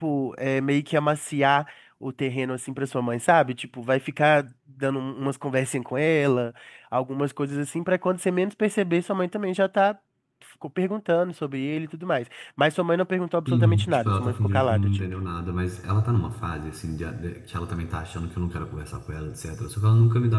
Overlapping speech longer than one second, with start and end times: 13.5-15.0

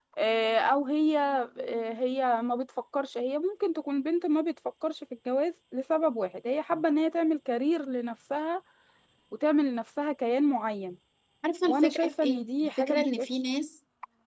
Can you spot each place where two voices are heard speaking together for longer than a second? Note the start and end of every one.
11.6-13.3

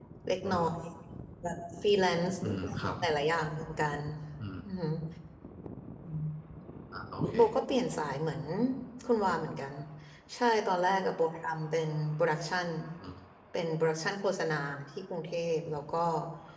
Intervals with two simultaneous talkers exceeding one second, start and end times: none

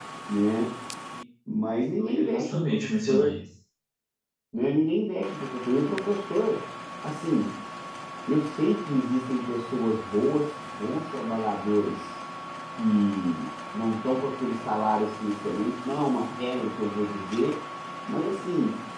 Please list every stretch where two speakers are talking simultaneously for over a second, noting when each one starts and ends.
2.0-3.4

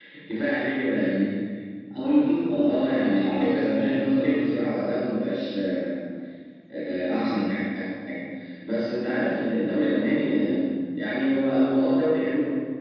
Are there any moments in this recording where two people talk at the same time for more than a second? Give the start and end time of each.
2.6-4.7

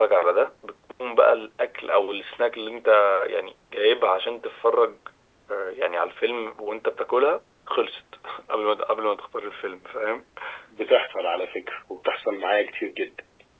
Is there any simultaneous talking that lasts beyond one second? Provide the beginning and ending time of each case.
none

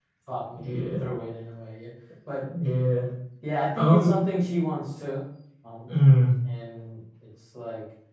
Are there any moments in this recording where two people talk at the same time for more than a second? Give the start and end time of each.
none

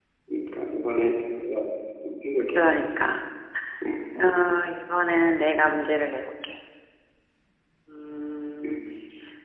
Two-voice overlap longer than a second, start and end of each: none

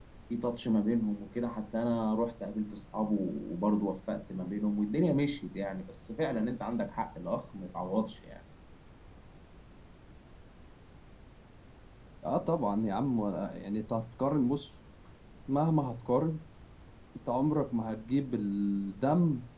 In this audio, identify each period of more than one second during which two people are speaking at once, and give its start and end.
none

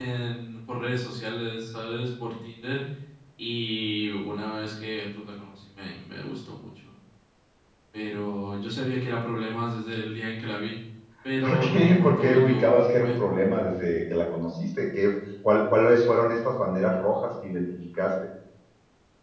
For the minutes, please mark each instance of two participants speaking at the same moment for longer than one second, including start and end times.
11.4-13.2

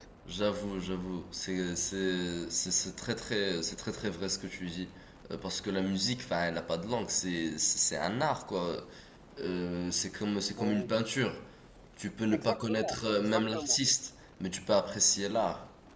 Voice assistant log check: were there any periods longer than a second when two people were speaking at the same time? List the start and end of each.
12.3-13.8

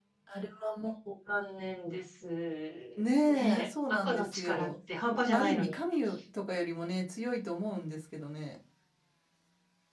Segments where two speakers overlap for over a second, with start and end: 3.3-4.7

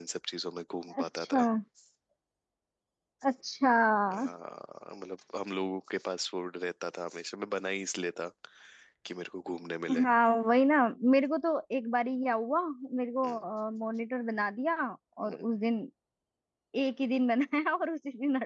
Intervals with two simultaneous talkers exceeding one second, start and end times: none

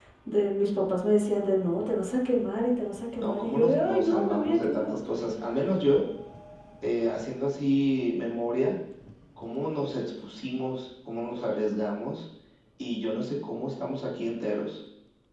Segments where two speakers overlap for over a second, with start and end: 3.2-4.9

